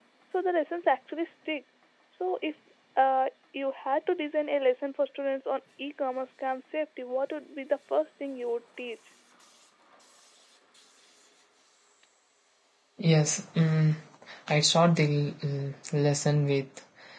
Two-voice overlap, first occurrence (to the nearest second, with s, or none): none